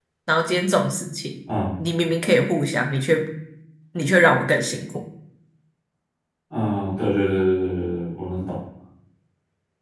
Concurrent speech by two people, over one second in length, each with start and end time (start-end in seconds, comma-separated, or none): none